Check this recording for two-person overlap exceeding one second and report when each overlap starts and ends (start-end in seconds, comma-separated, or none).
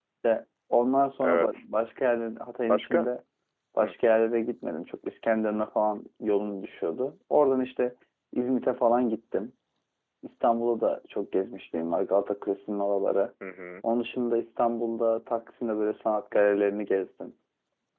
none